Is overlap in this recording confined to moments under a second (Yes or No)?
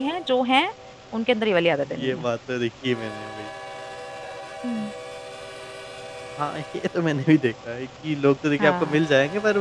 Yes